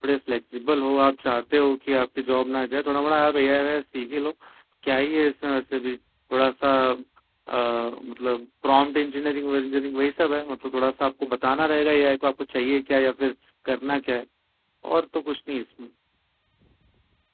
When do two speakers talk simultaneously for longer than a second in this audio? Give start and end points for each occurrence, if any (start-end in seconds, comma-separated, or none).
none